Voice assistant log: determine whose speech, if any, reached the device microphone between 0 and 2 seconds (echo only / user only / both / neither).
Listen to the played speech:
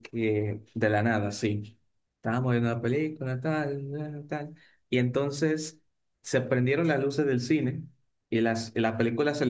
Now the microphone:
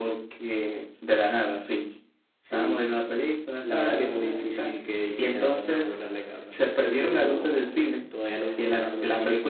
echo only